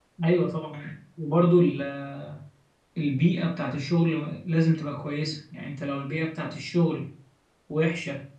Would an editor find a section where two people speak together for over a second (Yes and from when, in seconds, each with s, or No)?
No